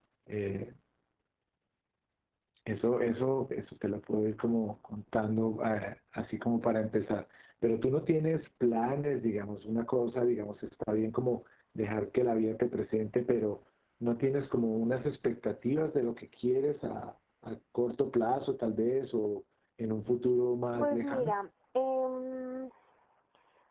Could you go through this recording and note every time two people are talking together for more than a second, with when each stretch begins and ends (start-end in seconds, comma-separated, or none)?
none